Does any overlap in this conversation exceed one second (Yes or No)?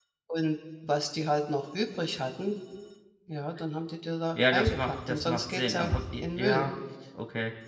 Yes